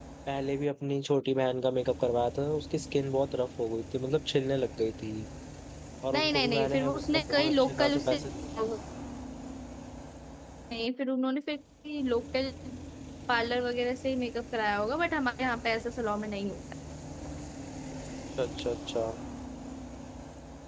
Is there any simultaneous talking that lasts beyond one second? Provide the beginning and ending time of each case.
6.1-8.2

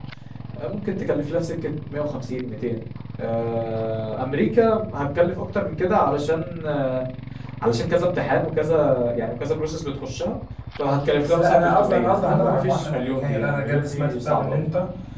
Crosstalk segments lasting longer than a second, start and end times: 11.1-14.7

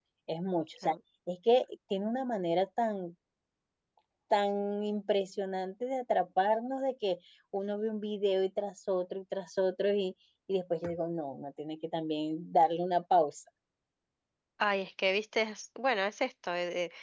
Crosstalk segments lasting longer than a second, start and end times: none

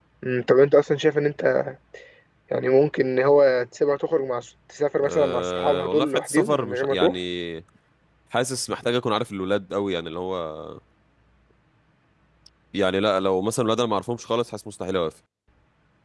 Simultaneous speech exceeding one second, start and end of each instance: 5.0-7.1

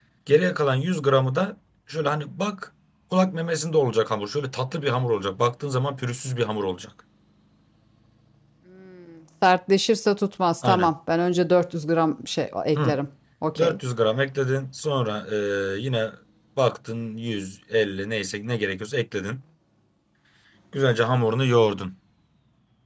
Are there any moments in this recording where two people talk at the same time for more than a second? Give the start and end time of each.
none

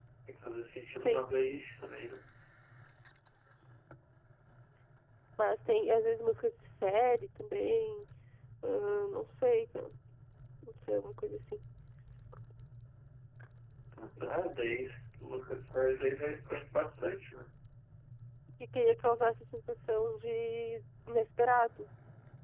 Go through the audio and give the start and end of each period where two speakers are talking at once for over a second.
none

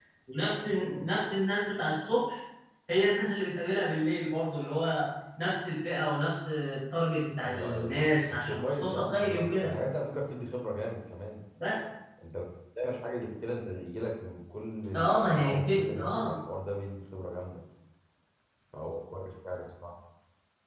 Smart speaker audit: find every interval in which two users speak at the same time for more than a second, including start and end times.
7.4-9.7, 15.0-16.3

